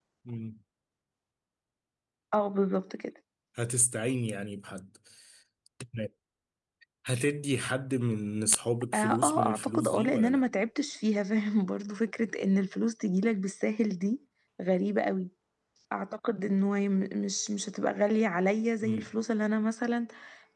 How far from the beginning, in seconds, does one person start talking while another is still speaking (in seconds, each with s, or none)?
8.9 s